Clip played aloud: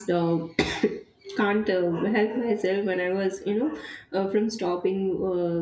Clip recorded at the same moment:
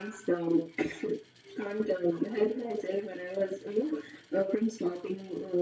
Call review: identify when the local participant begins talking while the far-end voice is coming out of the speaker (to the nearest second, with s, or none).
none